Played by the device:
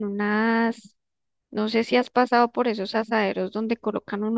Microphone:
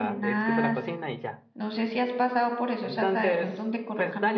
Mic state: both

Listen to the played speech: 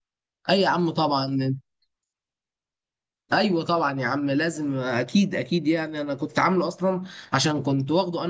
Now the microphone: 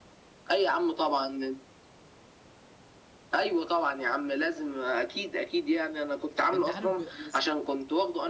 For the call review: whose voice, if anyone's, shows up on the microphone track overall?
both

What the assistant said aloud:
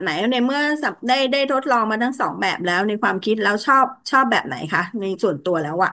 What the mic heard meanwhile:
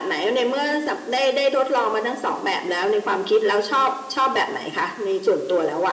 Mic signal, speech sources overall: echo only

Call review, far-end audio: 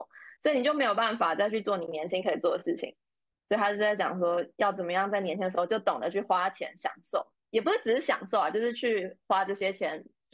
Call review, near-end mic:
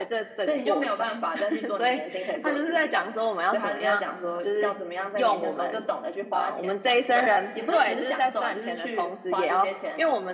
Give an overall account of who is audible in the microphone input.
both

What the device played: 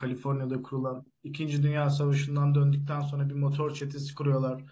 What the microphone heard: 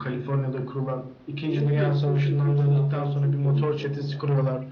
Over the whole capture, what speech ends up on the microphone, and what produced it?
both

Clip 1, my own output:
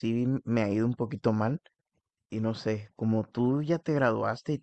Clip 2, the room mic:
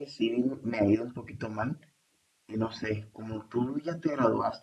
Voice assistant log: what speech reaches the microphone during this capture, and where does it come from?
echo only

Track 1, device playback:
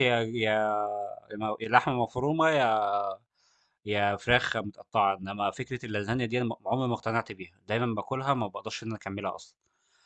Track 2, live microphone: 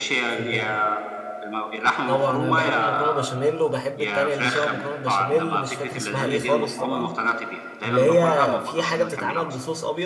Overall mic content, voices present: both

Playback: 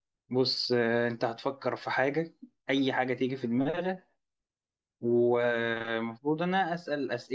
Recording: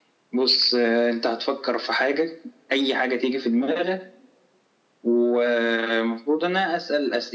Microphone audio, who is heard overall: echo only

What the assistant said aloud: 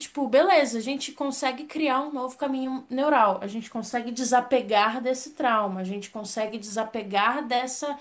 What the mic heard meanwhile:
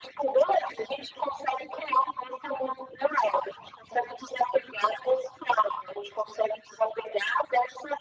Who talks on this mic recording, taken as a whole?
echo only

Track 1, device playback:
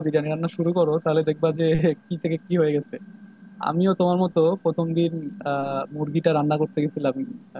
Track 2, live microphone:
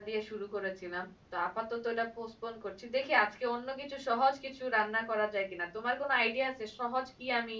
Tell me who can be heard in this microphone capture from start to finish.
user only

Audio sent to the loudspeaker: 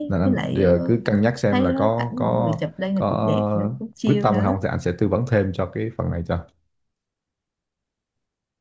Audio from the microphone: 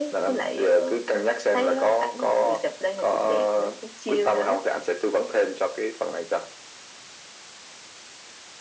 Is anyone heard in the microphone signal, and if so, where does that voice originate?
echo only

